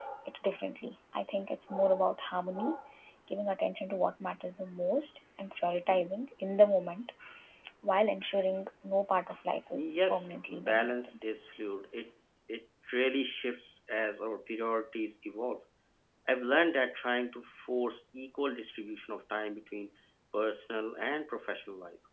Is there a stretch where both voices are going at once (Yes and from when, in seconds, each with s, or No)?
Yes, from 9.6 s